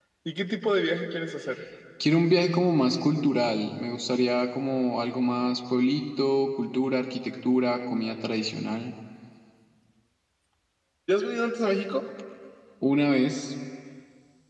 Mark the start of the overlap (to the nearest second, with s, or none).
none